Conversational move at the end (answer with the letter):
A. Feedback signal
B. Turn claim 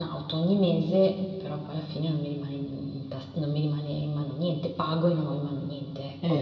B